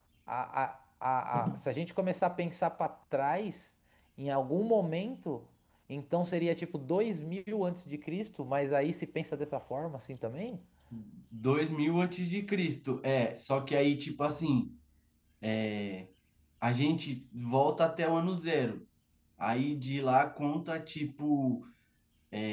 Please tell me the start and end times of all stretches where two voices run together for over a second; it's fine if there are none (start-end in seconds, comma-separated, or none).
none